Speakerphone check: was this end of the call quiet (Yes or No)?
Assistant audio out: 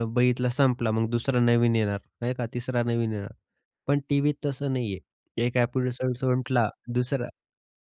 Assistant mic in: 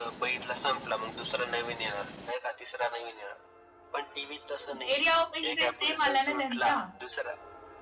No